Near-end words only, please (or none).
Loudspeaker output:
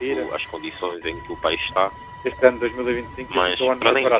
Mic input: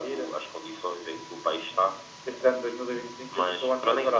none